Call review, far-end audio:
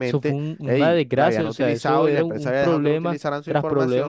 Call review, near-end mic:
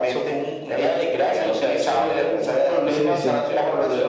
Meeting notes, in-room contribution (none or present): present